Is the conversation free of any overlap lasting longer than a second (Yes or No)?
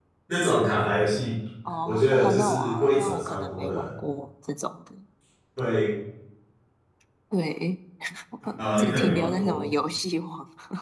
No